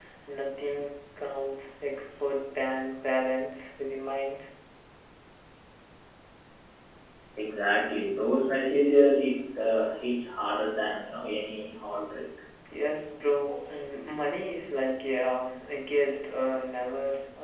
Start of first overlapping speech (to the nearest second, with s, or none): none